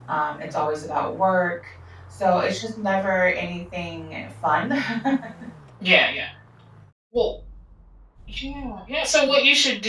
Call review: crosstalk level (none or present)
none